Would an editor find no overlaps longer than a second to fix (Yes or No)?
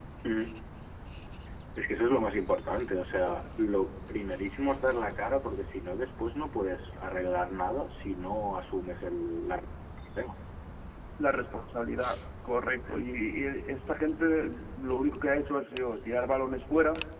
Yes